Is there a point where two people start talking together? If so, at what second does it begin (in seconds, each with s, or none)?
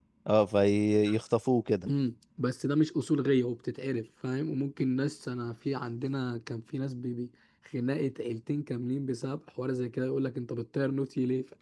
none